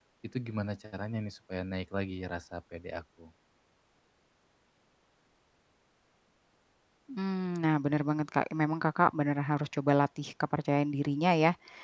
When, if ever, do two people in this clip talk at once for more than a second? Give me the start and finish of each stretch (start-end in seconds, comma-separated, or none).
none